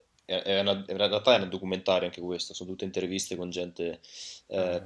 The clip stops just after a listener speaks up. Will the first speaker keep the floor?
Yes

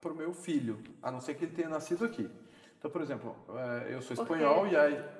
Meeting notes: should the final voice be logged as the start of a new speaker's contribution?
Yes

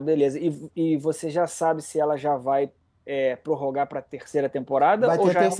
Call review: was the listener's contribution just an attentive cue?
No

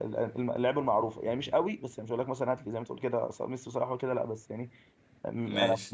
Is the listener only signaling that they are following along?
Yes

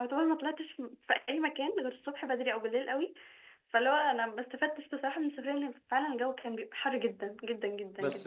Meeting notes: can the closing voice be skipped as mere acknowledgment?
No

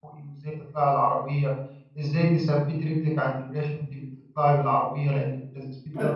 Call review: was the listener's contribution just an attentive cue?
No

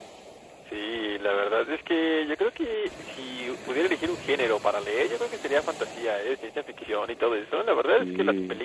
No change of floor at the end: Yes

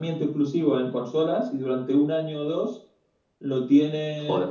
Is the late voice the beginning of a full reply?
No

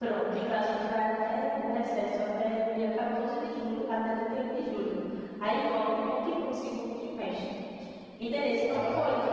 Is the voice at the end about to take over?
No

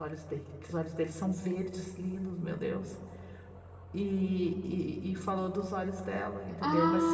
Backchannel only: No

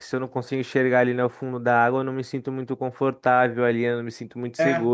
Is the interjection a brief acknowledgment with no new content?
Yes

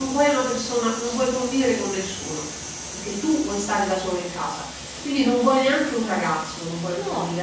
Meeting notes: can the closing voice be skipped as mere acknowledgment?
Yes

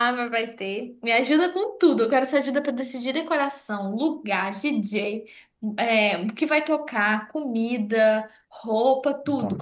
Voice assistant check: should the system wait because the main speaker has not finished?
Yes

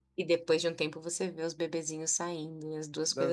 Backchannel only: No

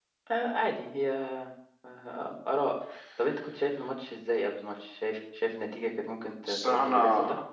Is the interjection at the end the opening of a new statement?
Yes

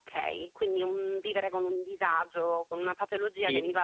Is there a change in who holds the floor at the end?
No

